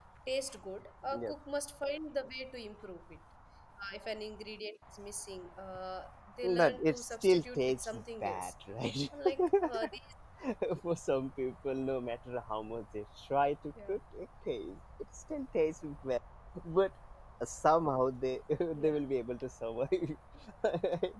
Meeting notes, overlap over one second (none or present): present